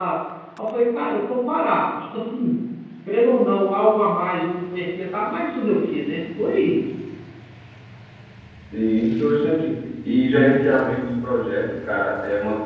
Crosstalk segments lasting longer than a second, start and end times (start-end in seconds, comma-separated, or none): none